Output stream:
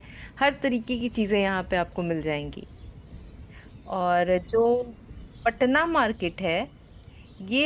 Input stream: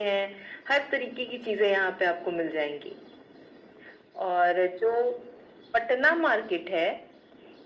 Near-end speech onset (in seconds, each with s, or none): none